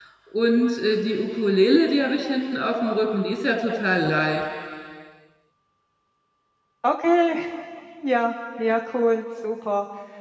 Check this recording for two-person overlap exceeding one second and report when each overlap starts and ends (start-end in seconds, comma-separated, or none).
none